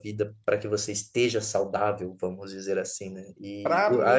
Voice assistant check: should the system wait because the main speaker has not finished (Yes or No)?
No